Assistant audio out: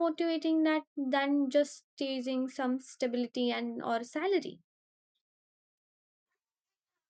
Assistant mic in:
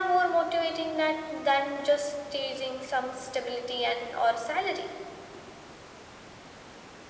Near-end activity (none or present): none